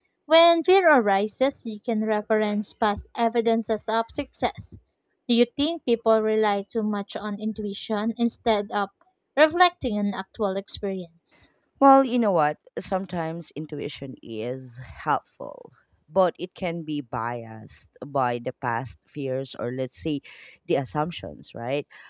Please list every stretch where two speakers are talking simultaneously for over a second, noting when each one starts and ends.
none

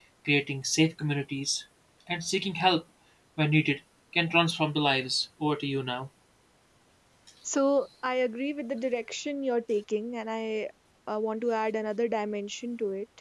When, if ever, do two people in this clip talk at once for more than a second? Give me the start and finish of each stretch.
none

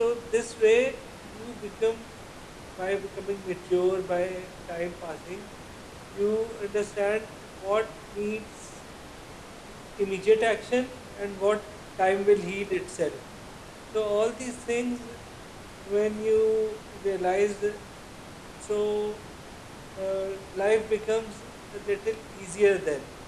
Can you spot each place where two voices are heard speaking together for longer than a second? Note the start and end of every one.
none

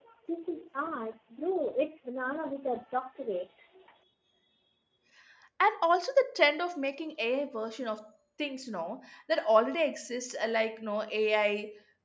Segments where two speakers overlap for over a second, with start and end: none

